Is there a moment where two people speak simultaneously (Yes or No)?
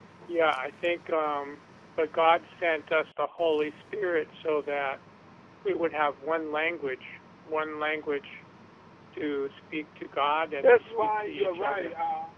Yes